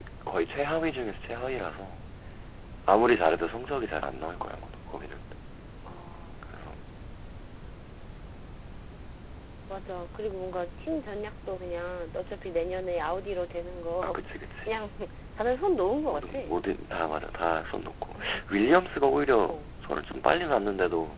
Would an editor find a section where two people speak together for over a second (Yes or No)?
No